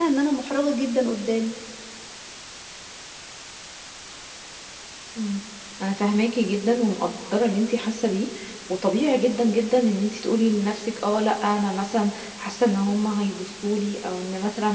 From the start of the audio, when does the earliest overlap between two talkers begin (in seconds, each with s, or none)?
none